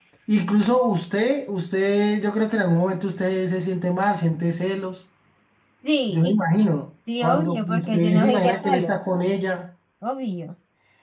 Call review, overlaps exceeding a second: present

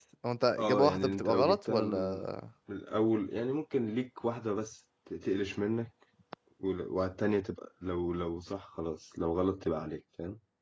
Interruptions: present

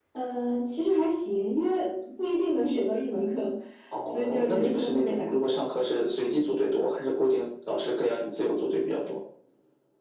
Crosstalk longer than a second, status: present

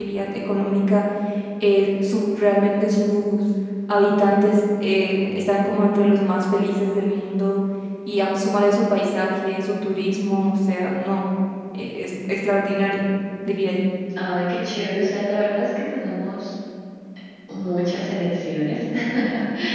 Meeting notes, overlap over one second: none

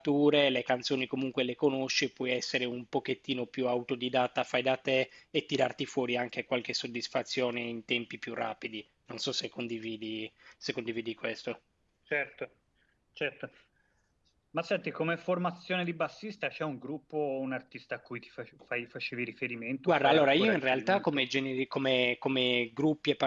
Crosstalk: present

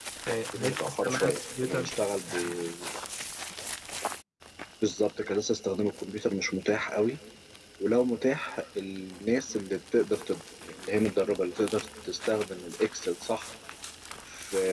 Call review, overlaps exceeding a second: present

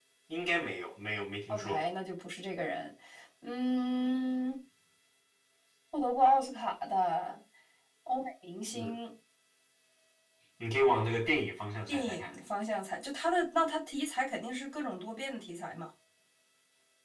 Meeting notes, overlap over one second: none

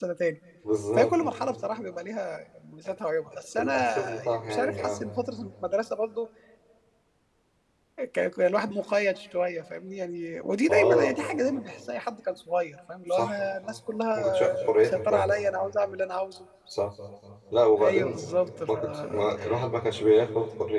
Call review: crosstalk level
present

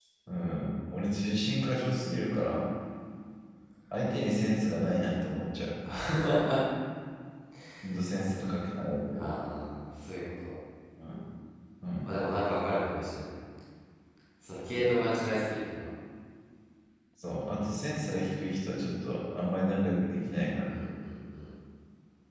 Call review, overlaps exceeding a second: none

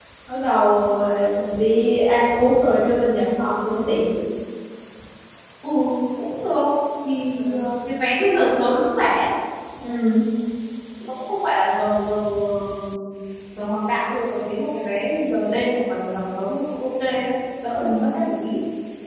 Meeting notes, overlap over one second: none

